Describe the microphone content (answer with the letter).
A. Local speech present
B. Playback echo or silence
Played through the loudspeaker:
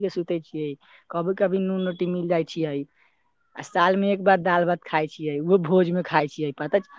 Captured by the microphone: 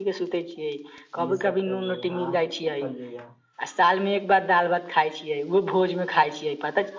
A